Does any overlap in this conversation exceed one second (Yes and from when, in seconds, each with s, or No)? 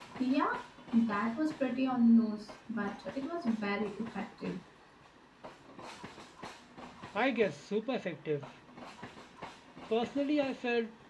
No